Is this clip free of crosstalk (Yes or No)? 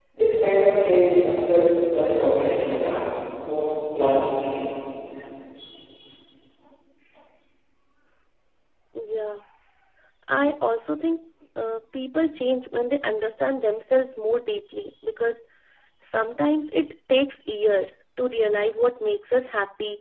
Yes